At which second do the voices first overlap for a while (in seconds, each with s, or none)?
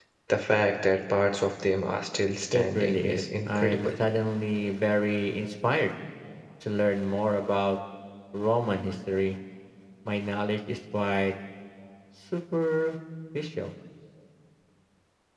2.5 s